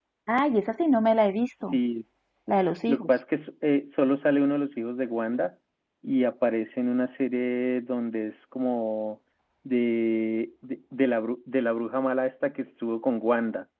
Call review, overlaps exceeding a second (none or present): none